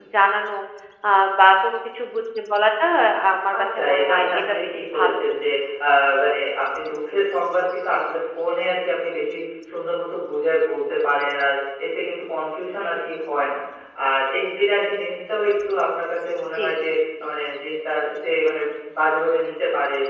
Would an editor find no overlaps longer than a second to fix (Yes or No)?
No